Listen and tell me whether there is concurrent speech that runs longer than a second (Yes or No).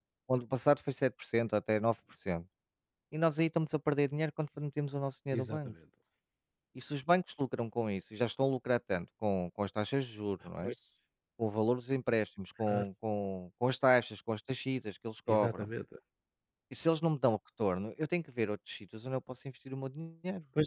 No